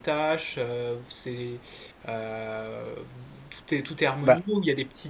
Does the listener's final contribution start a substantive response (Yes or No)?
No